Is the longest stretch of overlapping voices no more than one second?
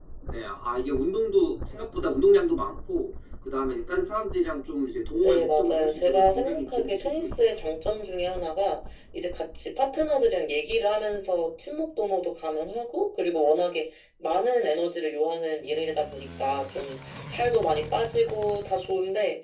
No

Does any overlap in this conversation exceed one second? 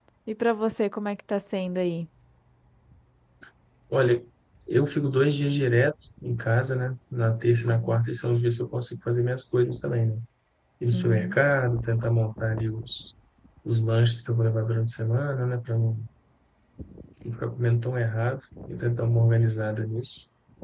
No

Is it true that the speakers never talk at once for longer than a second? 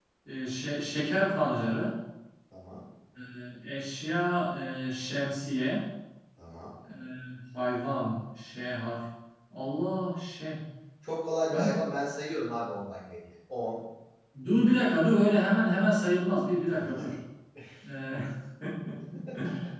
Yes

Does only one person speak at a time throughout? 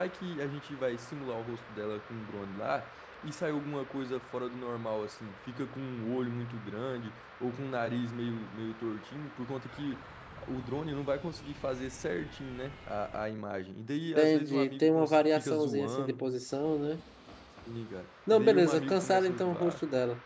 No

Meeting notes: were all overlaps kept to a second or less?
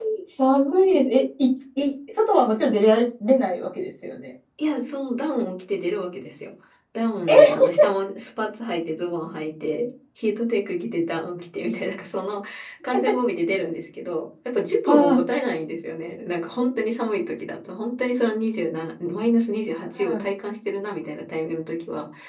Yes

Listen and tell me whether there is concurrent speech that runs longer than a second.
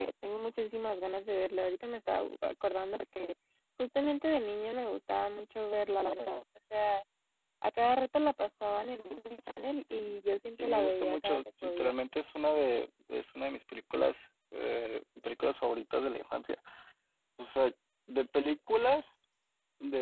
Yes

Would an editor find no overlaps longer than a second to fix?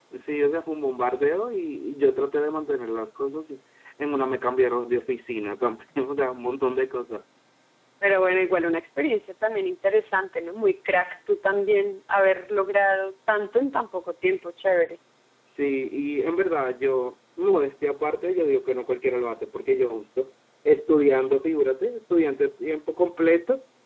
Yes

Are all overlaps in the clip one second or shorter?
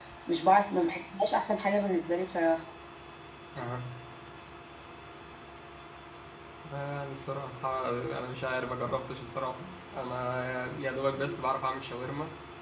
Yes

